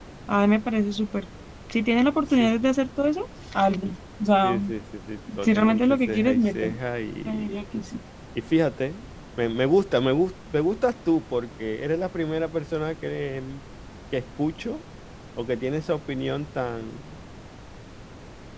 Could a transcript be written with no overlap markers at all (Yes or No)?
No